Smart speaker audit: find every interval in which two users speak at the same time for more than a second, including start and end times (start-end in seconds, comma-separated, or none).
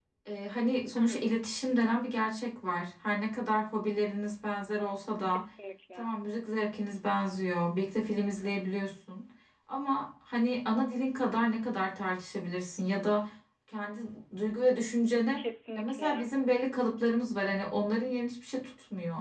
none